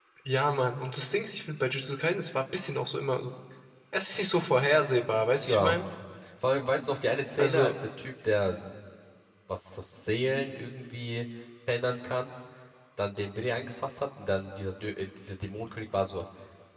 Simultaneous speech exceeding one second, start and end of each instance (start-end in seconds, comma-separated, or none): none